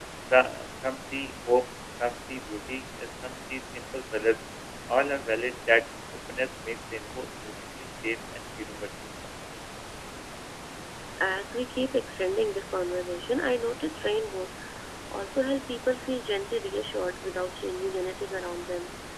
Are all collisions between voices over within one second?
Yes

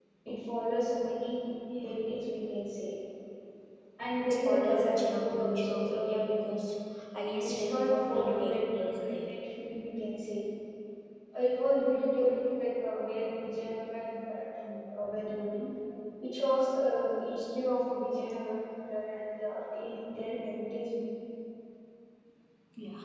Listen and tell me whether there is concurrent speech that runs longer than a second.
Yes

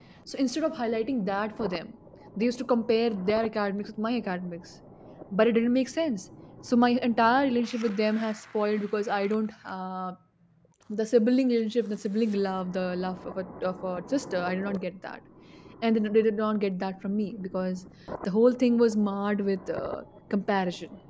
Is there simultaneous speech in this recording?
No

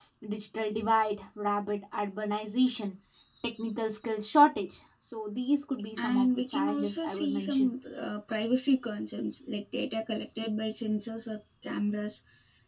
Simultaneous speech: Yes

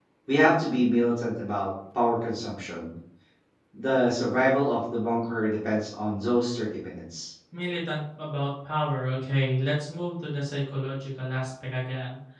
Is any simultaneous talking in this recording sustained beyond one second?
No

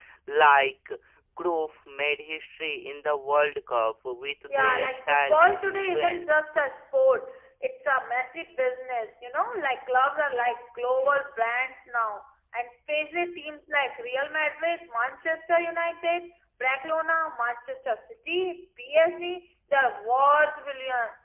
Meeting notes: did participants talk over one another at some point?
Yes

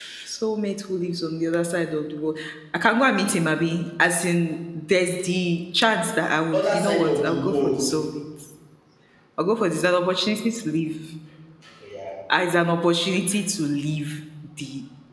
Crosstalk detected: Yes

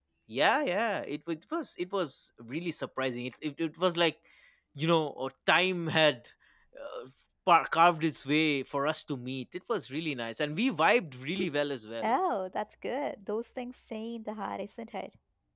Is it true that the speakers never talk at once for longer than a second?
Yes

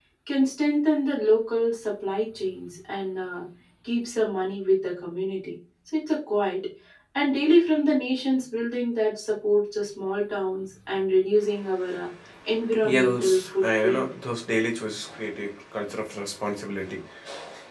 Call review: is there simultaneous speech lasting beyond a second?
Yes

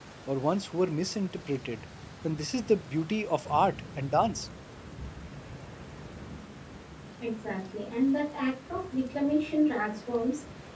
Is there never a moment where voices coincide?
Yes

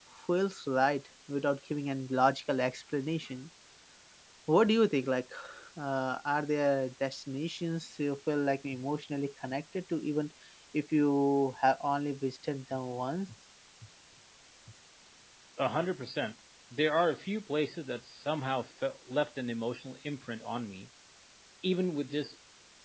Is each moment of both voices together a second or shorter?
Yes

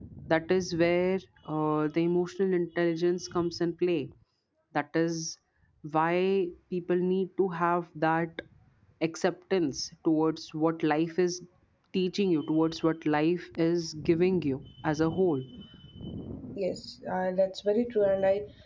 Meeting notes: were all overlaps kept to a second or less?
Yes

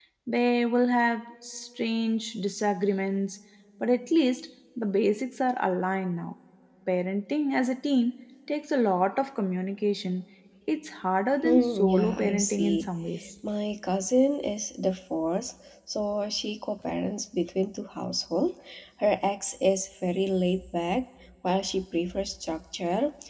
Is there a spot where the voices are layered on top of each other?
Yes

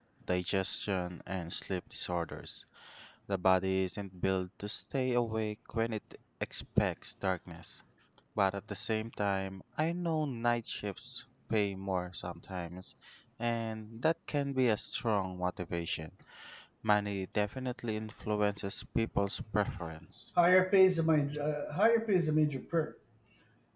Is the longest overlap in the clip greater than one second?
No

